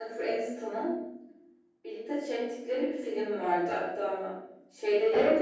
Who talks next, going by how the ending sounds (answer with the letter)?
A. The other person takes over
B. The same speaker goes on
A